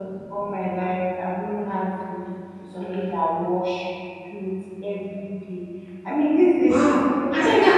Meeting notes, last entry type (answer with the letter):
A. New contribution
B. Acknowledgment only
A